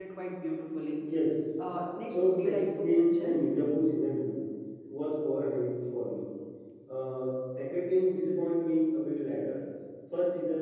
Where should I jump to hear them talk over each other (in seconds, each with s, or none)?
2.1 s